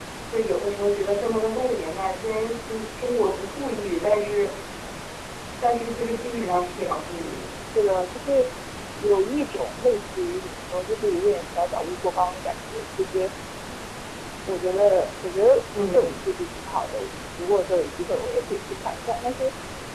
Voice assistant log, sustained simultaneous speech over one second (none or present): none